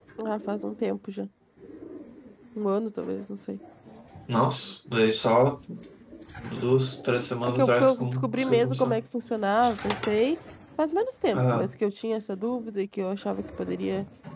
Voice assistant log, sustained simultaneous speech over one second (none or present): present